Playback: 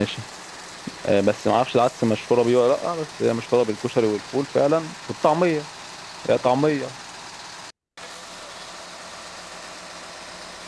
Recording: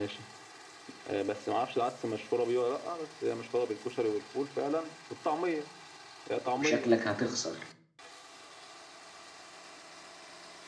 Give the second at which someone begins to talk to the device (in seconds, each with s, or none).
6.6 s